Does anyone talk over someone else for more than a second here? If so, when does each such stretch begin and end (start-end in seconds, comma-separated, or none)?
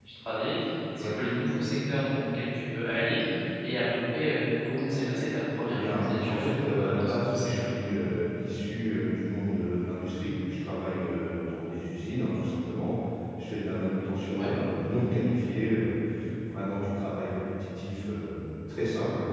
5.6-7.7